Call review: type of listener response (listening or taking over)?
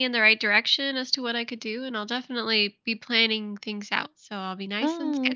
taking over